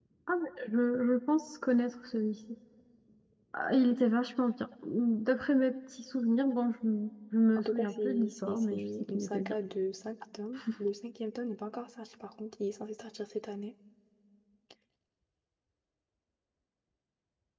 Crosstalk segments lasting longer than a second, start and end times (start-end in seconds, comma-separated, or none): 7.6-9.5